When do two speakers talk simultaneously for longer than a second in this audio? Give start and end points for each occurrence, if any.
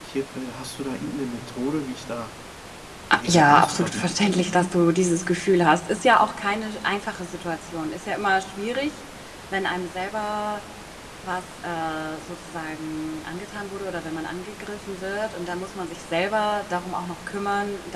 3.1-4.7

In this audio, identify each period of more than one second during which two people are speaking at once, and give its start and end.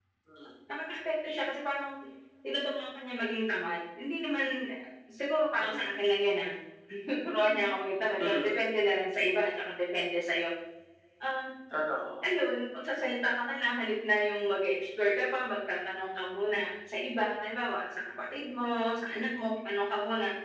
none

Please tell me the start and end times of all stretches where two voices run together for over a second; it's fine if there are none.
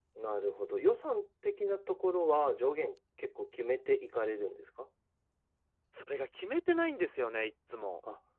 none

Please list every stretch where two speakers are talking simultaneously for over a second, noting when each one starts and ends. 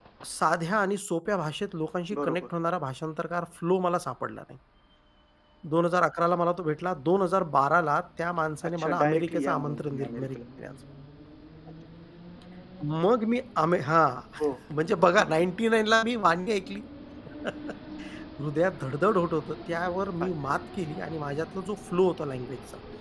8.6-10.4

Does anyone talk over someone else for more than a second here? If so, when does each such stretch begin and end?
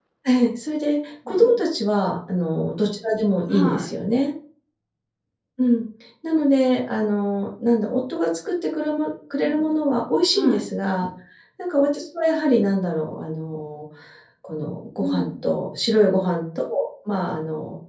none

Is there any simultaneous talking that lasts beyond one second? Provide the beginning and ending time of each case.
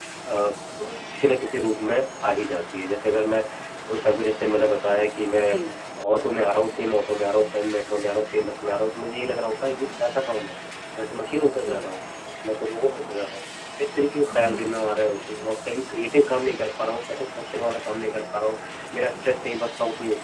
14.3-15.6

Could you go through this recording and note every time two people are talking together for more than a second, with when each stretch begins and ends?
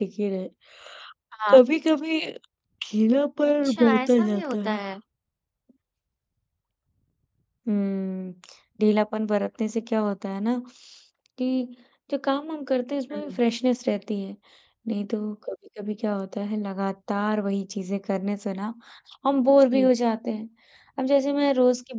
3.4-4.8

